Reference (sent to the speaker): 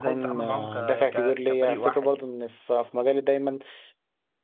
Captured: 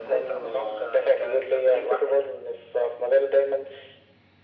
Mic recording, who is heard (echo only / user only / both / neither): echo only